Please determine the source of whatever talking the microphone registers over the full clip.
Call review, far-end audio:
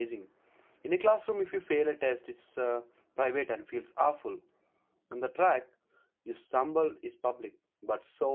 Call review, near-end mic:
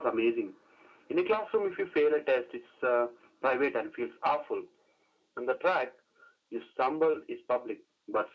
echo only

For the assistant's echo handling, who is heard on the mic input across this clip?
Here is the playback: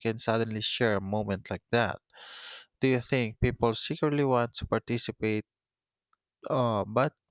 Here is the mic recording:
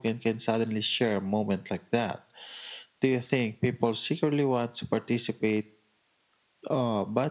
echo only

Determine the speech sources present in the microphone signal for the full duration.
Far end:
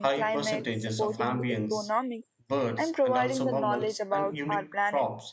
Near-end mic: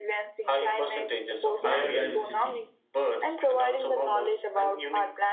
both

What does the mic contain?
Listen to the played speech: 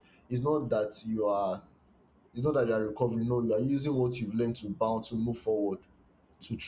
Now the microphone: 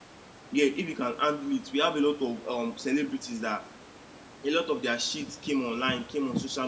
user only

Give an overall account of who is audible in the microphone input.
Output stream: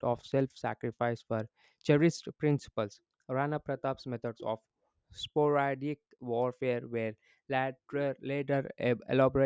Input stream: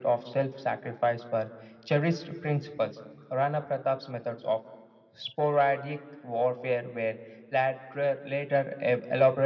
echo only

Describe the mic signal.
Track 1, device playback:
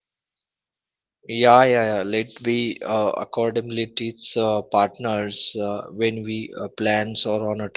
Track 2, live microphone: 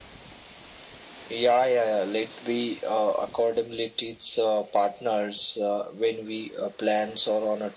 echo only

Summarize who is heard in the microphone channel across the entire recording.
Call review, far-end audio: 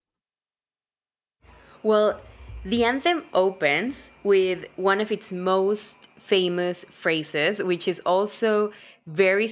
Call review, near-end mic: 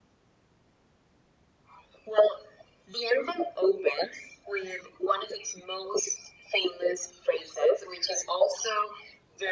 echo only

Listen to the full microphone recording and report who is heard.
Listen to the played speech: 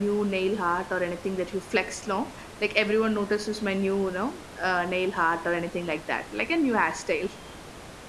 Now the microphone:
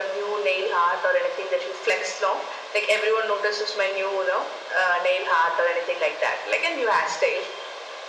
echo only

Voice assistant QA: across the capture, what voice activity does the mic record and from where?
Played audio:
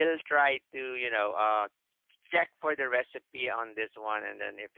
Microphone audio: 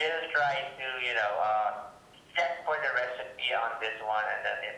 echo only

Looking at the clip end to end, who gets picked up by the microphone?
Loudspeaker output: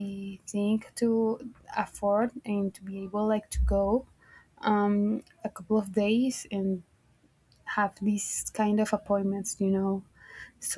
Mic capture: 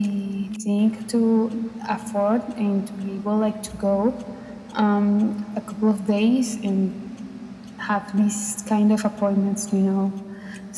echo only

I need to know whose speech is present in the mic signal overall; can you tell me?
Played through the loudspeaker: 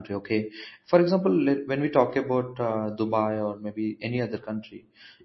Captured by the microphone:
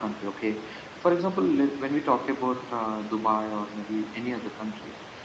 echo only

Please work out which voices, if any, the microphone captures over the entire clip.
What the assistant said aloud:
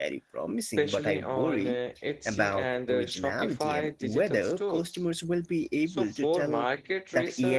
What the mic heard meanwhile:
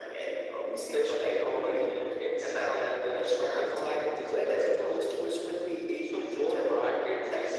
echo only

